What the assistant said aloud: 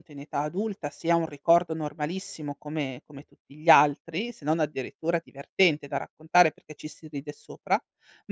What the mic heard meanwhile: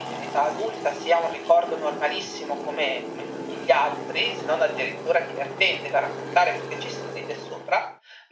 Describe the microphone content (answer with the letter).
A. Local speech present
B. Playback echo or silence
B